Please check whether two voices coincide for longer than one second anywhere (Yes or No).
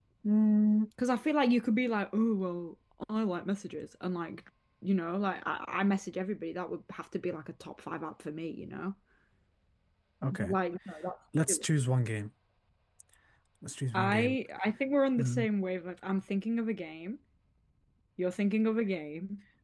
No